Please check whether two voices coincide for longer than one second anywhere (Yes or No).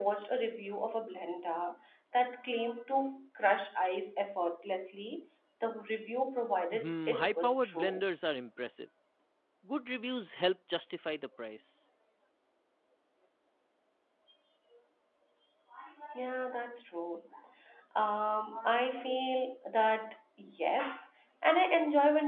Yes